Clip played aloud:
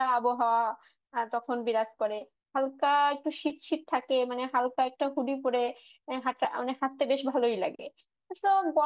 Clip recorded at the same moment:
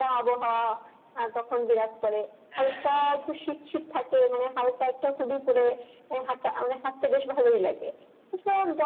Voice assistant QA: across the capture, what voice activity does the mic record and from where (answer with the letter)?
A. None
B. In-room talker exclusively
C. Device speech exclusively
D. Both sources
D